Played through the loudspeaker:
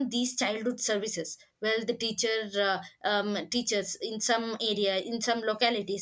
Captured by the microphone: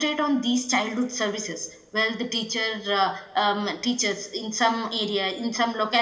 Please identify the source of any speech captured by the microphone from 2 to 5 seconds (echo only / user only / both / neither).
echo only